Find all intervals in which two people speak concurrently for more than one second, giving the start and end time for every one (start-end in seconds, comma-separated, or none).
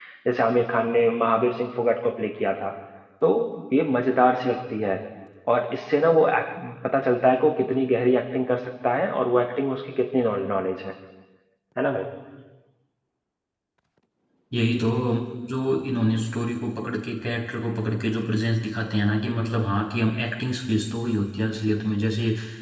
none